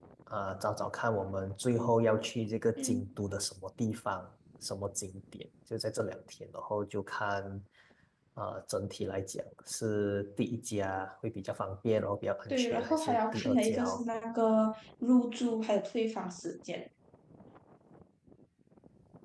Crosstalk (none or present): present